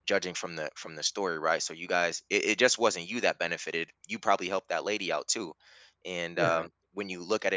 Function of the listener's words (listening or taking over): listening